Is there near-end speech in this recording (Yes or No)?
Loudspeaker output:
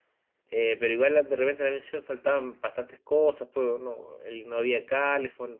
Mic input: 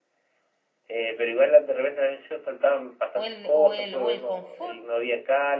Yes